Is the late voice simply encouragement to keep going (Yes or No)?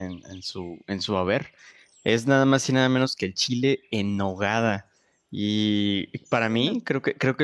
Yes